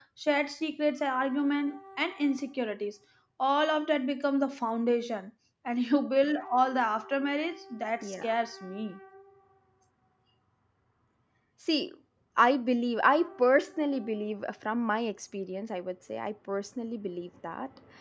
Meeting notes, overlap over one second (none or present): none